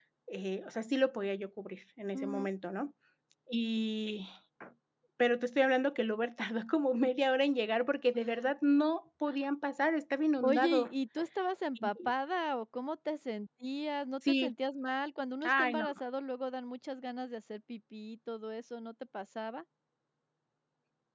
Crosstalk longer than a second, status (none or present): none